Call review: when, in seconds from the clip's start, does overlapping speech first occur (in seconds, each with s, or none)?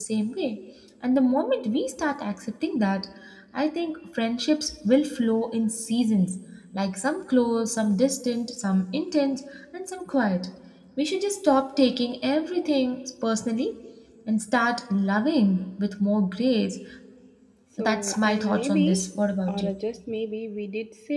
17.8 s